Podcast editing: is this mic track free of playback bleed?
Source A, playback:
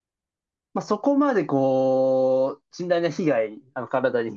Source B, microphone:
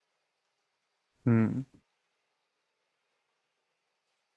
Yes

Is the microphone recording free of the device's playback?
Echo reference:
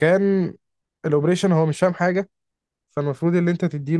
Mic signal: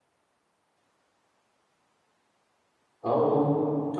Yes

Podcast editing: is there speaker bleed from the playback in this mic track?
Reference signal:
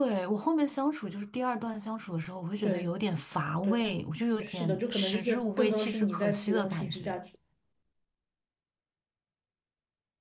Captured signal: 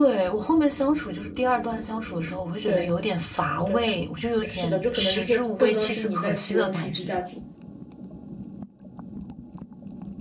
Yes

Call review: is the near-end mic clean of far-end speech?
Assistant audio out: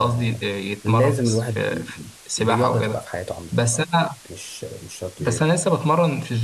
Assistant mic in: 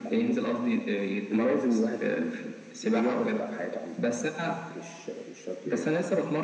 No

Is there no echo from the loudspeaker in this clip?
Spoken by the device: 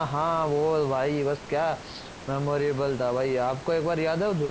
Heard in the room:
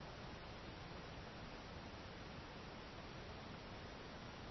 Yes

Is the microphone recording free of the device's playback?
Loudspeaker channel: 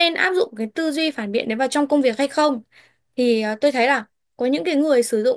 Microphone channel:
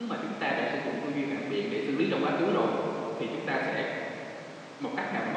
Yes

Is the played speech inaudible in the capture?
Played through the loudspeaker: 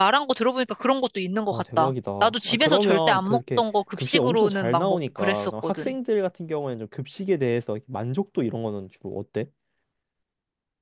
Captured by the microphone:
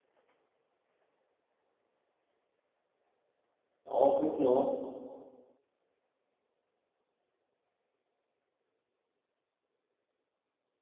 Yes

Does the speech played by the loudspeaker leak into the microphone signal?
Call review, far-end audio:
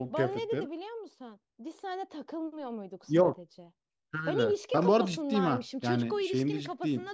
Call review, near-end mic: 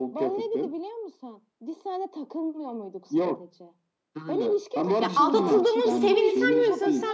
Yes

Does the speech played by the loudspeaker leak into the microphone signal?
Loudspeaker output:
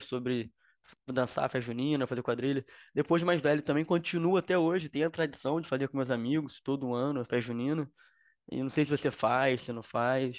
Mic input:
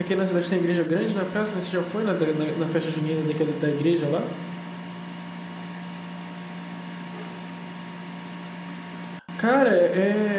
No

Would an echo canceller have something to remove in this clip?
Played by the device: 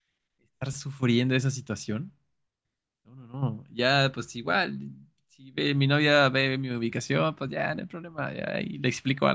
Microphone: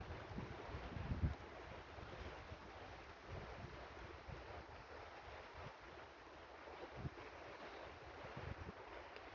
No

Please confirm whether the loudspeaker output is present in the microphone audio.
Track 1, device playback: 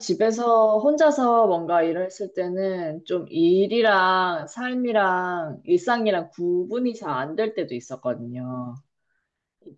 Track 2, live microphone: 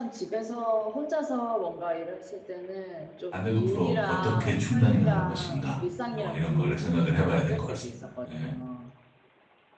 Yes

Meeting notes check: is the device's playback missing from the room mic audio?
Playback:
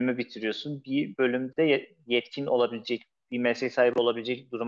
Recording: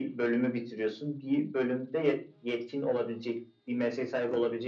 No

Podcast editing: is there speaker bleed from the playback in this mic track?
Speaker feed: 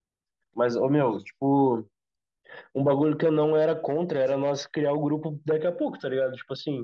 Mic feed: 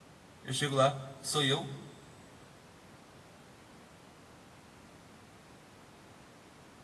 No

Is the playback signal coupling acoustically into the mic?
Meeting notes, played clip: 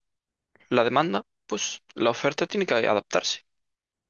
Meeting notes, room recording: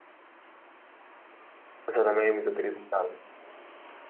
No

